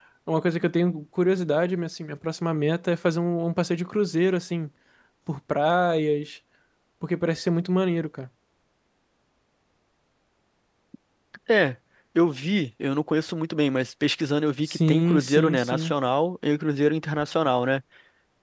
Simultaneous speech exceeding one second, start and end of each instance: 14.6-15.9

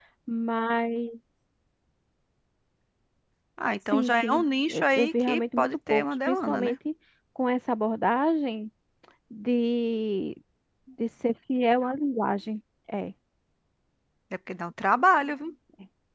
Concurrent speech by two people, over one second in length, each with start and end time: 3.9-6.8

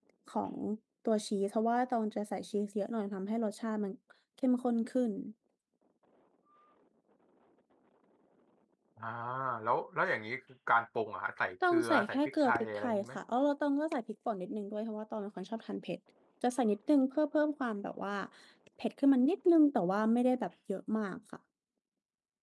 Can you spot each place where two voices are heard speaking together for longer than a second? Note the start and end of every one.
11.7-13.0

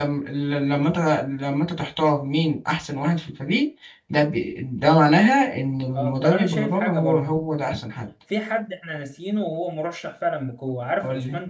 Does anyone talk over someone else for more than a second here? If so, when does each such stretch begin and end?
5.9-7.3

